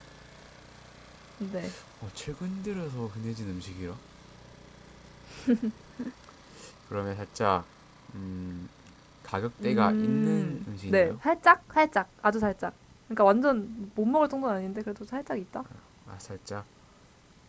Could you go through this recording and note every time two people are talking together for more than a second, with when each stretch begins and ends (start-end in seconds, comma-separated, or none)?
9.6-11.2